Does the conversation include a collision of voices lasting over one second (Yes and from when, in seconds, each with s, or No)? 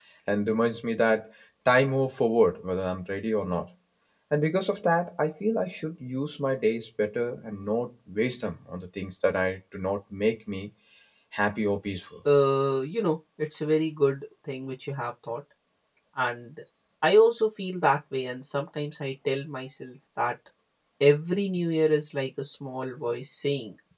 No